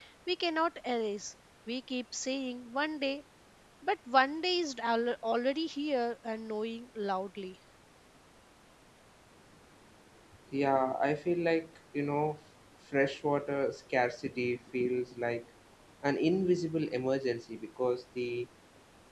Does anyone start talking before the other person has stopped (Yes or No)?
No